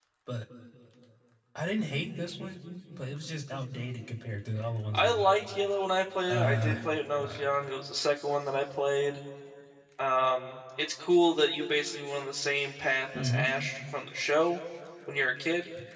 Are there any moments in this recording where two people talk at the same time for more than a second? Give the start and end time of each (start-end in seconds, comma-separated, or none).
none